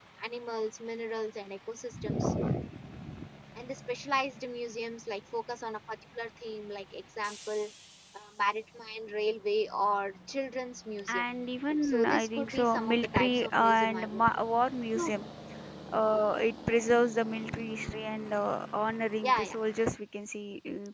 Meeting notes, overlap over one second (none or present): present